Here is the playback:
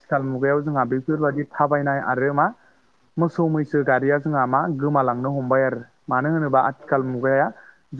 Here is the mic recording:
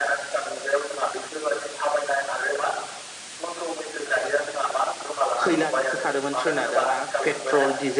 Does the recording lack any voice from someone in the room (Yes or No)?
No